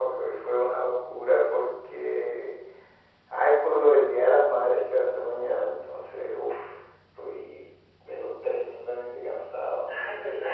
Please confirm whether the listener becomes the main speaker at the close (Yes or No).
Yes